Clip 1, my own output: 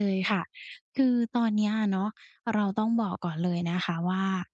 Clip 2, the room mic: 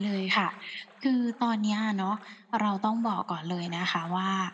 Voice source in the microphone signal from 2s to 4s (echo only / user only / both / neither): echo only